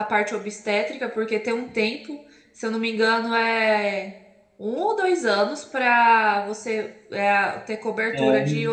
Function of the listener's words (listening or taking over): listening